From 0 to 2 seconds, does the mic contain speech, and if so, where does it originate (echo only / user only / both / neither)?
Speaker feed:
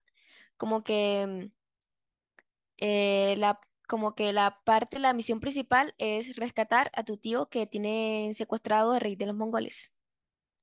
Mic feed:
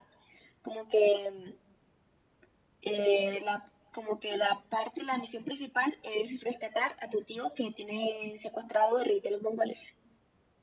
echo only